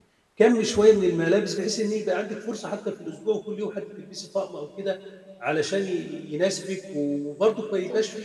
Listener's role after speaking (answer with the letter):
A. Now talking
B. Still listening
B